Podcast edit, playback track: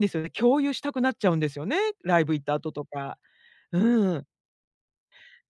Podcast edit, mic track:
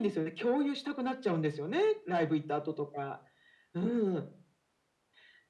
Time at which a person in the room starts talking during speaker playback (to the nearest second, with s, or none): none